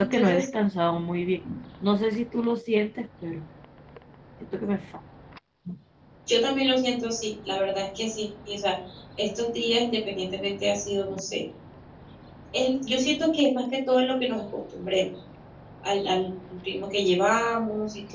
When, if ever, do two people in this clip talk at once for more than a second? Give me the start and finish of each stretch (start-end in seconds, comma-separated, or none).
none